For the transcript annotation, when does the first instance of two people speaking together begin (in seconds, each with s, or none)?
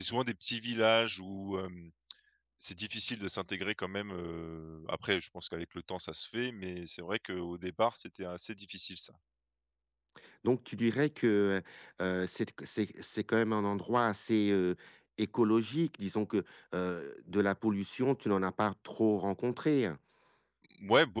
none